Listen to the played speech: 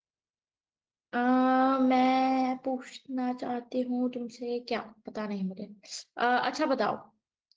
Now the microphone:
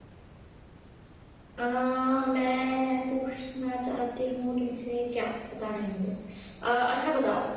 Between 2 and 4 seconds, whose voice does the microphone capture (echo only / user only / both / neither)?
echo only